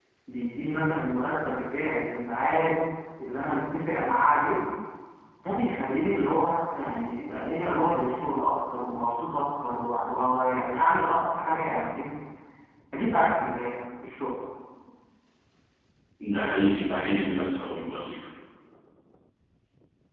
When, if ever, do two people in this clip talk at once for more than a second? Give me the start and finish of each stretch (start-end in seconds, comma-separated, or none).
none